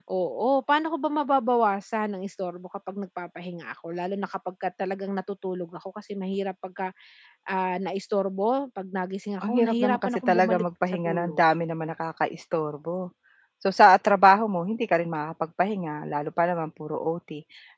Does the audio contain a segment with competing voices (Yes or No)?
Yes